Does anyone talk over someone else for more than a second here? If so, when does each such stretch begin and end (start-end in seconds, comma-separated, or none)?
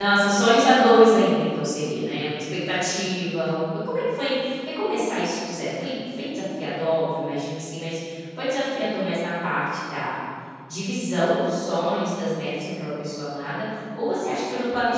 none